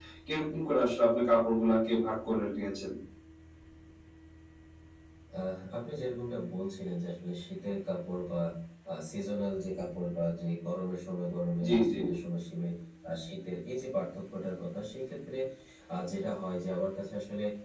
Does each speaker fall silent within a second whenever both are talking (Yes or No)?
Yes